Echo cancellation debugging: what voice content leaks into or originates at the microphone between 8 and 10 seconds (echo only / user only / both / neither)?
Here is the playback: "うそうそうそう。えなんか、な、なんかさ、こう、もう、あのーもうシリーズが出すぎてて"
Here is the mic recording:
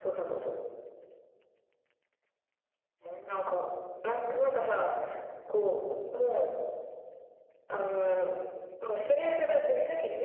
echo only